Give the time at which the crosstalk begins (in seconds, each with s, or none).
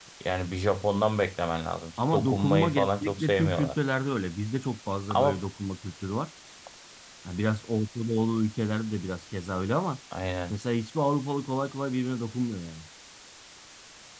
2.1 s